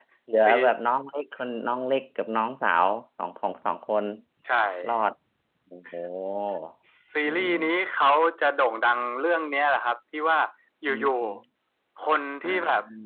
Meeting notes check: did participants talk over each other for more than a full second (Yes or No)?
No